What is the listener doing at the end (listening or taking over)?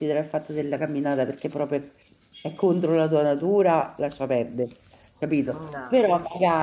listening